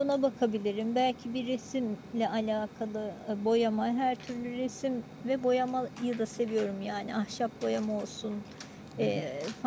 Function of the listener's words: listening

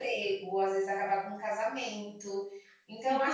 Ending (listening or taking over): taking over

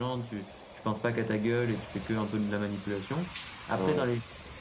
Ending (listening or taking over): listening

